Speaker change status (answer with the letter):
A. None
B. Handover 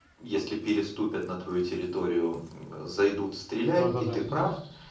A